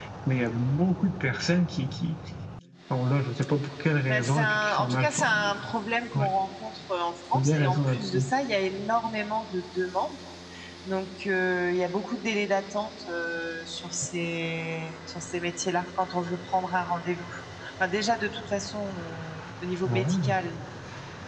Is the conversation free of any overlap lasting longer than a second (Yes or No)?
No